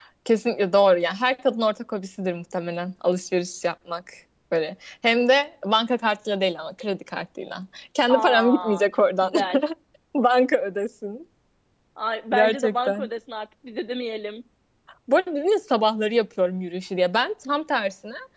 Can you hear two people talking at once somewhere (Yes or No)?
Yes